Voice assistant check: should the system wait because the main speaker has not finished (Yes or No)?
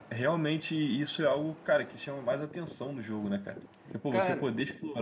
Yes